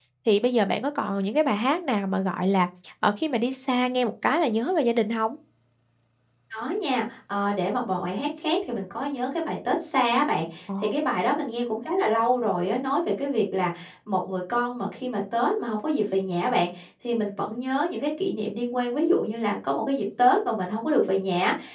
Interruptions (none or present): none